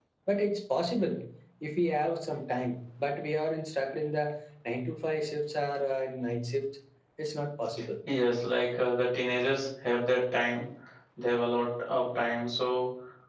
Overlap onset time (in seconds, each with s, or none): none